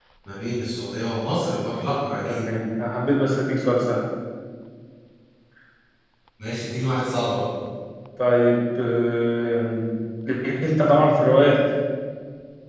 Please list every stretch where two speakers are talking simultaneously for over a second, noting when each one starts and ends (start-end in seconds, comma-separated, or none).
none